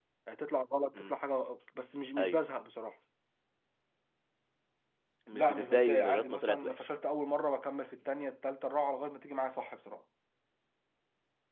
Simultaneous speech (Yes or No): Yes